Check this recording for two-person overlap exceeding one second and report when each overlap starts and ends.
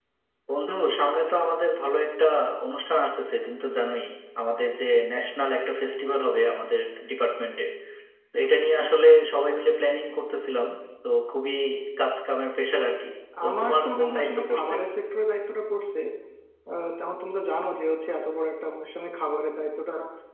13.5-14.7

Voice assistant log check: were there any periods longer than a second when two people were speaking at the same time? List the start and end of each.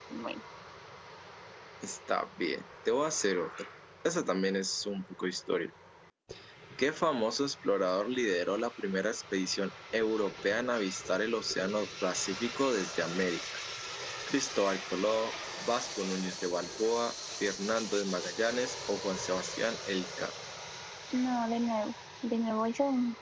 none

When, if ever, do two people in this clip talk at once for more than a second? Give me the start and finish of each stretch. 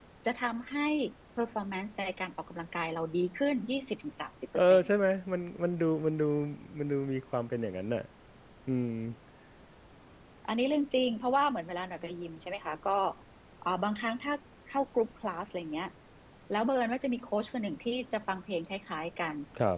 none

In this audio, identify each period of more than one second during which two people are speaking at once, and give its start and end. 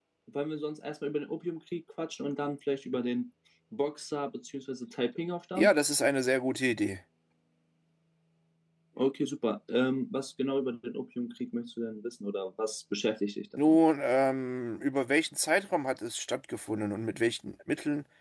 none

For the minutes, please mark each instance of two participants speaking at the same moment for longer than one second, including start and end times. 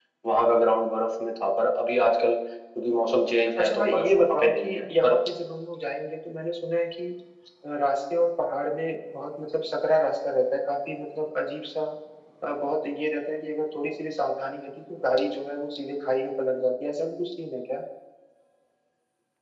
3.6-5.2

